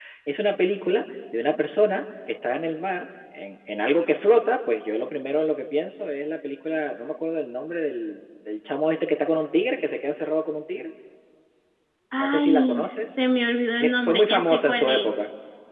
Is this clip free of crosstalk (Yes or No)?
No